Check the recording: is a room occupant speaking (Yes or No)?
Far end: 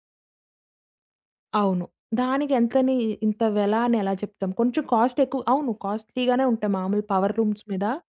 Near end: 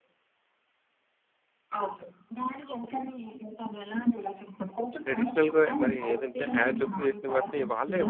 Yes